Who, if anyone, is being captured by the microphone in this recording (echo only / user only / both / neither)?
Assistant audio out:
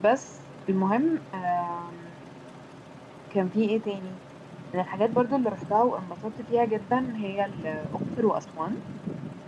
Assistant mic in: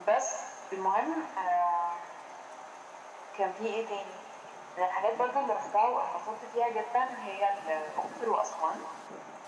echo only